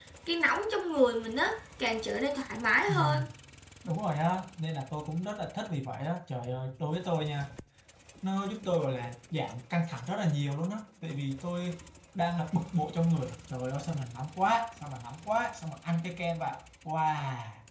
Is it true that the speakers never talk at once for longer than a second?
Yes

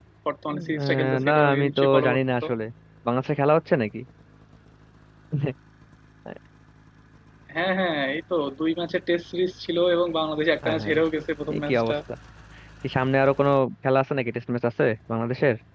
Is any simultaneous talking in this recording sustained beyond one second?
Yes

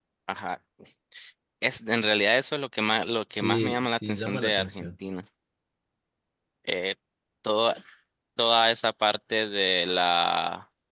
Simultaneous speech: Yes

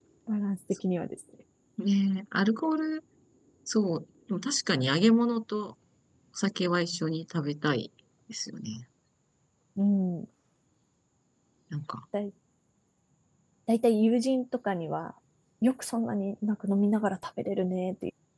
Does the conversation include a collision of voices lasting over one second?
No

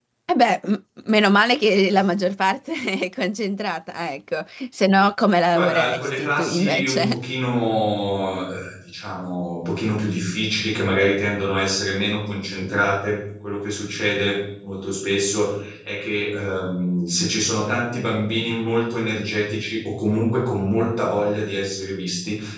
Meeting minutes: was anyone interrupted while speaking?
Yes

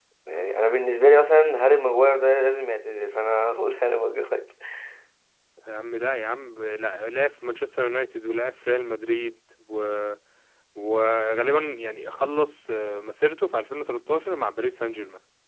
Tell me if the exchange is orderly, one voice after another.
Yes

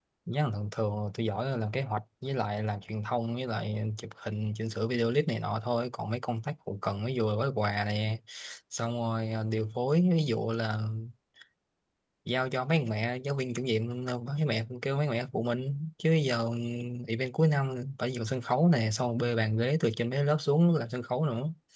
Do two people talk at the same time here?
No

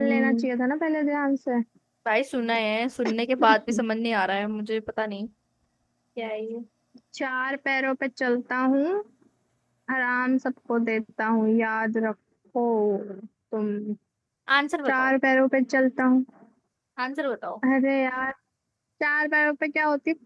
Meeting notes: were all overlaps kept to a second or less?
Yes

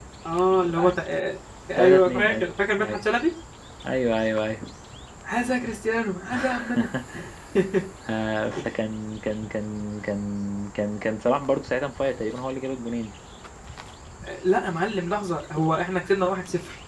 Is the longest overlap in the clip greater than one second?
Yes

